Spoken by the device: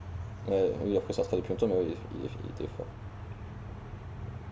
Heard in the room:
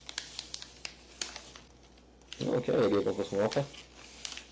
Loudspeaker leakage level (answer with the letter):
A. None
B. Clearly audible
A